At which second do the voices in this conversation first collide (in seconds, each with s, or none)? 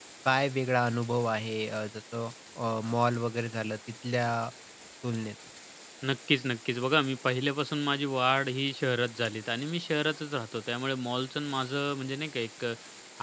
none